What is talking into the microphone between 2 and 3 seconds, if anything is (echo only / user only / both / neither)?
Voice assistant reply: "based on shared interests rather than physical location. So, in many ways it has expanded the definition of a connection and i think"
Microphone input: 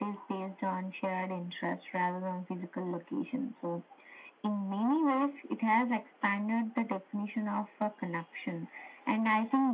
echo only